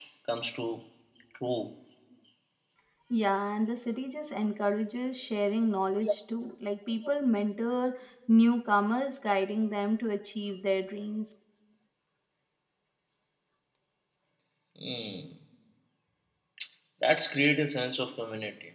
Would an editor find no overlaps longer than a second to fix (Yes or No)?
Yes